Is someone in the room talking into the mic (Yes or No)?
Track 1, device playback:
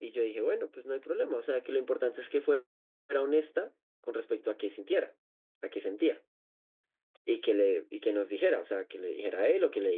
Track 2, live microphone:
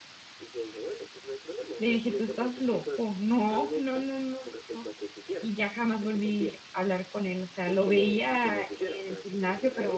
Yes